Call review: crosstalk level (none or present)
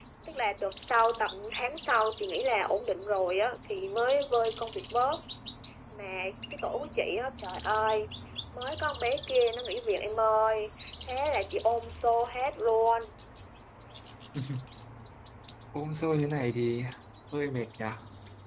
none